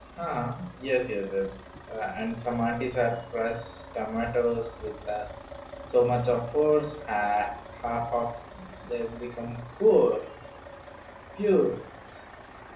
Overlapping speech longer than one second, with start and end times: none

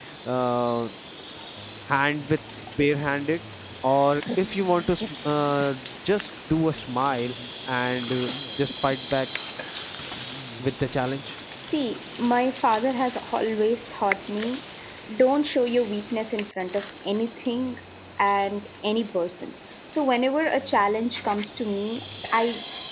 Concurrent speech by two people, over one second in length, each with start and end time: none

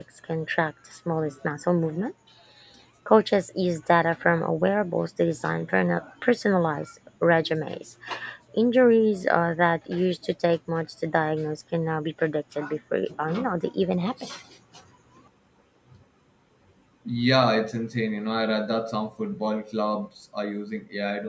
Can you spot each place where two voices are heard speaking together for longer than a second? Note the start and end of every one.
none

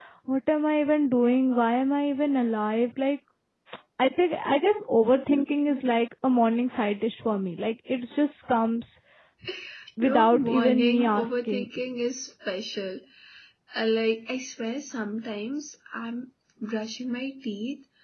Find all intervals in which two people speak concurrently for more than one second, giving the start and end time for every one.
10.0-11.7

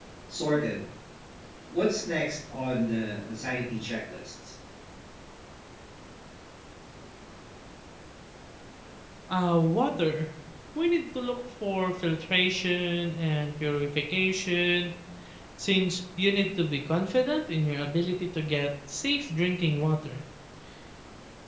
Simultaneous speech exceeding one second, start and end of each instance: none

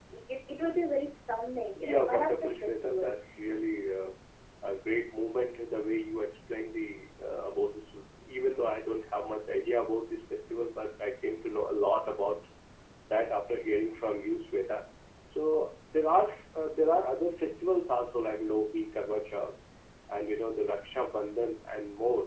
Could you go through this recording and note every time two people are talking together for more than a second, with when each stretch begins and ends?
1.8-3.1

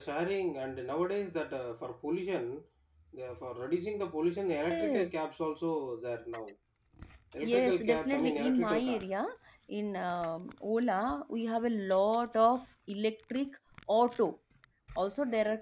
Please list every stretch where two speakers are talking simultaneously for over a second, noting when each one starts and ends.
7.4-9.0

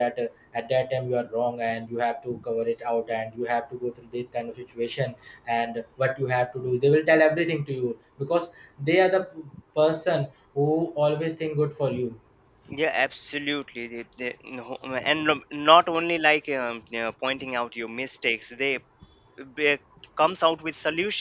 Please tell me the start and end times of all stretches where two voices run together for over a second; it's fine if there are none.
none

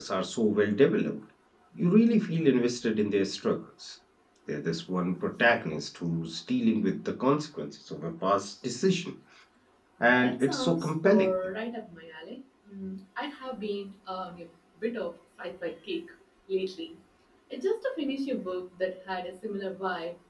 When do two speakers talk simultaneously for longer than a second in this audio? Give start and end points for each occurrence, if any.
10.0-11.3

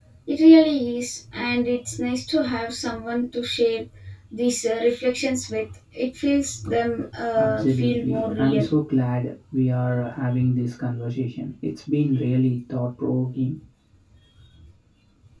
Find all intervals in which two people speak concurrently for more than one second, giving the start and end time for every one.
7.4-8.7

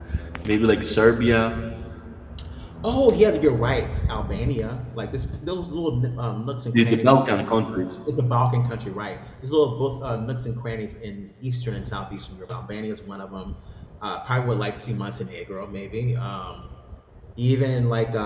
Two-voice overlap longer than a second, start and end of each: none

